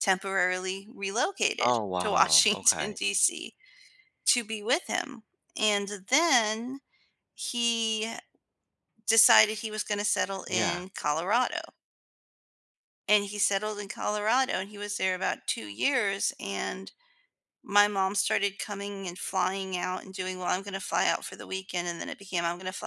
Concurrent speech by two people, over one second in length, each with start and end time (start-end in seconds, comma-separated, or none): 1.6-2.9